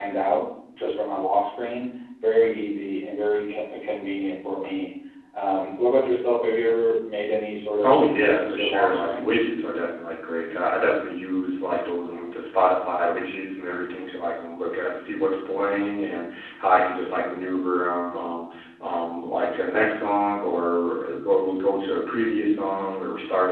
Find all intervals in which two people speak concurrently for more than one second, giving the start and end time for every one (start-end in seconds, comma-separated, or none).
7.8-9.3